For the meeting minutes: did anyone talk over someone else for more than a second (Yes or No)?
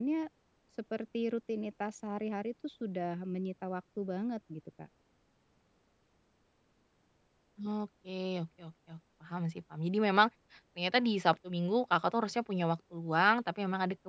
No